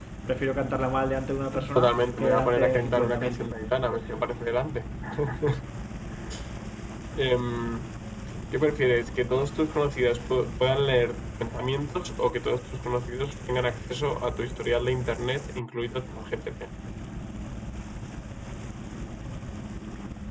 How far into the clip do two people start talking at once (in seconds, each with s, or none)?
1.5 s